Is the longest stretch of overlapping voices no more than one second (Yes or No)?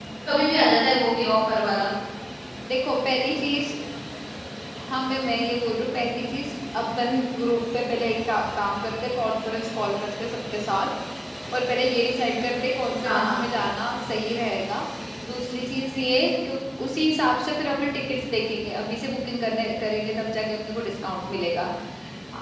Yes